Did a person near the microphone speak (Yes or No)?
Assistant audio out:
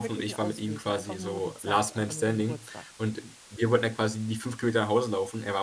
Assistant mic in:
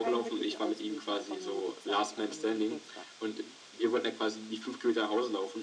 No